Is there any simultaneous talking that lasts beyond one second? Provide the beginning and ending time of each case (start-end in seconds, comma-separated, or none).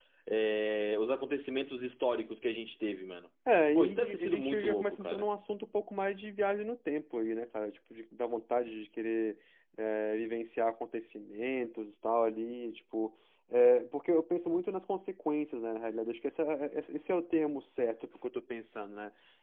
3.8-5.3